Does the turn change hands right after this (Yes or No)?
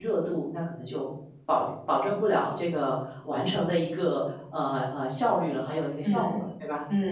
Yes